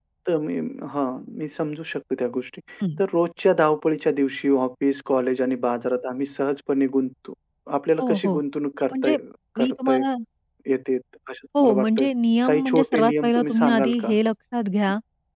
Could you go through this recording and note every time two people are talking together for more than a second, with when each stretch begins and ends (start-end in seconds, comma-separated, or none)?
12.5-14.1